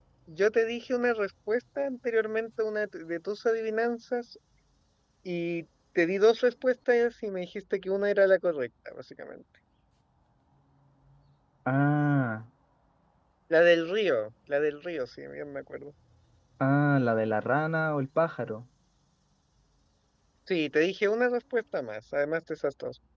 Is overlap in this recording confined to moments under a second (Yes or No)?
Yes